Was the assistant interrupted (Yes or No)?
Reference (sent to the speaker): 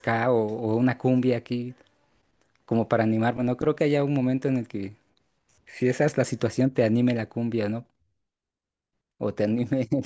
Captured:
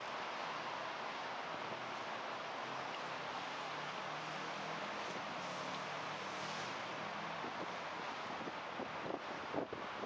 No